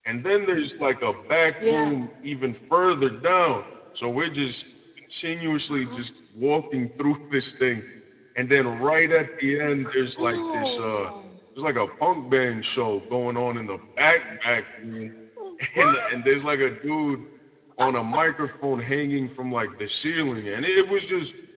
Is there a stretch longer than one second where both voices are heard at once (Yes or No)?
Yes